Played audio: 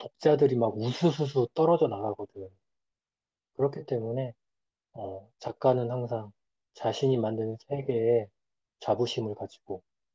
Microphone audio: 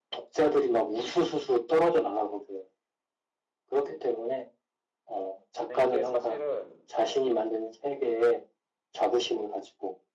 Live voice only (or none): 근데 이게 사실은